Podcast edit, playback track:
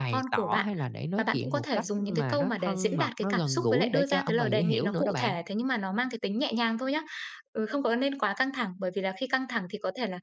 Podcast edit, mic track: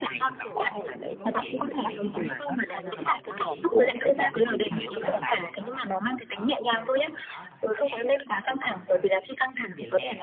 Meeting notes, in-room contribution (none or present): present